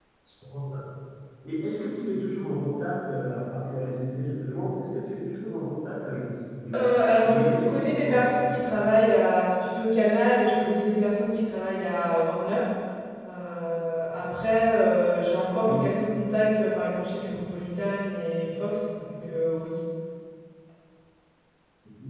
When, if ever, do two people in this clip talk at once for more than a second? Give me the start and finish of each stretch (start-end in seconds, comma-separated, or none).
7.2-8.5